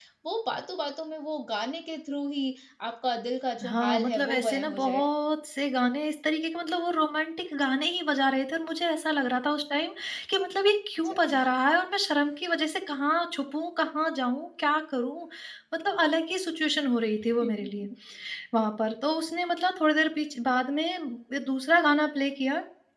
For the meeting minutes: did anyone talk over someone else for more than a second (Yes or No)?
Yes